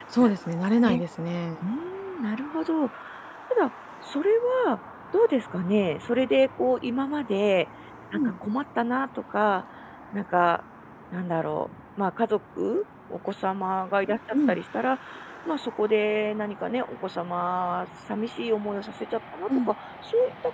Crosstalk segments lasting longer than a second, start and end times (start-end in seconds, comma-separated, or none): none